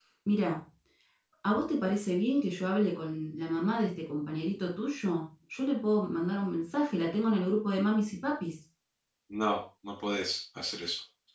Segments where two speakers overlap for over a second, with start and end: none

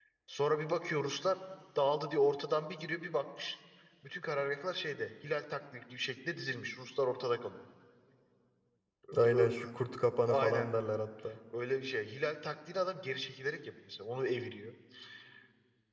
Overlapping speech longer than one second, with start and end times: none

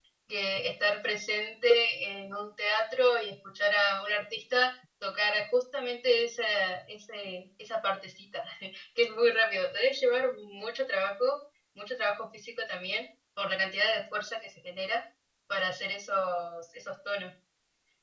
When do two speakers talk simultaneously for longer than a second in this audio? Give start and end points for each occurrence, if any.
none

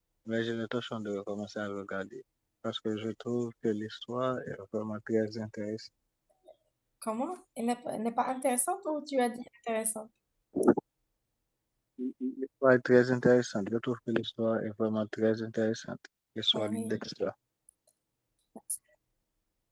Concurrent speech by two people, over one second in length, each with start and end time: none

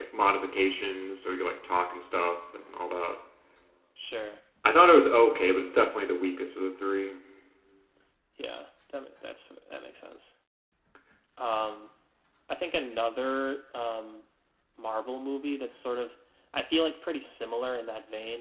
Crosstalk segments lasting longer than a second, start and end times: none

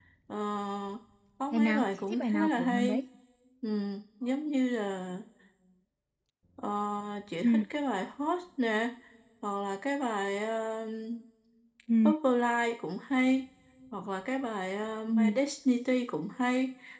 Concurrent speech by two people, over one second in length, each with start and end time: 1.5-3.0

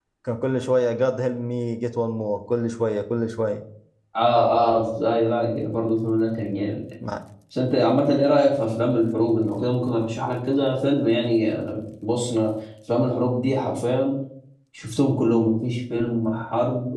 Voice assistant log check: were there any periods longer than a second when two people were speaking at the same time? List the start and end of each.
none

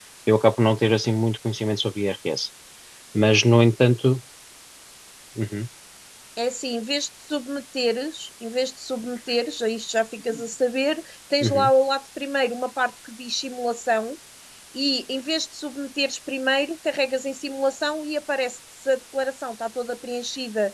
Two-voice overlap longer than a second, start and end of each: none

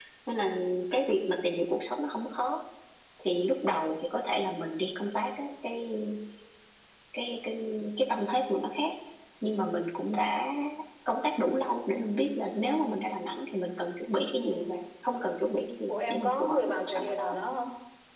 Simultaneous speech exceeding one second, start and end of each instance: 15.9-17.4

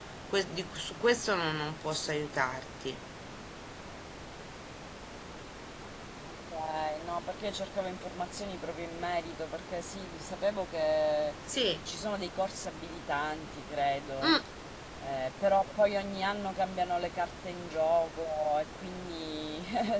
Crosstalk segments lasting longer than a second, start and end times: none

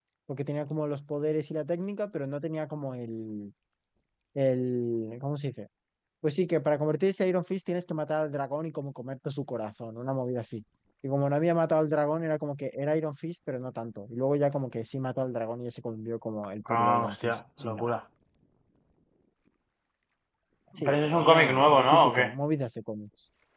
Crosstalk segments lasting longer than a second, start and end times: 16.7-17.9, 20.8-22.3

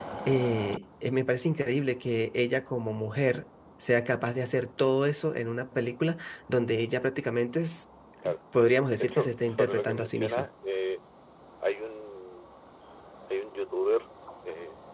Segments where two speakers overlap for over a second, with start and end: 9.0-10.5

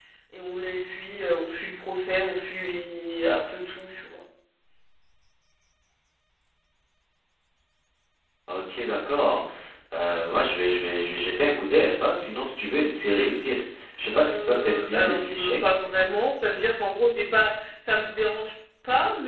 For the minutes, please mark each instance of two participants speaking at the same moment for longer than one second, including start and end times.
14.1-15.6

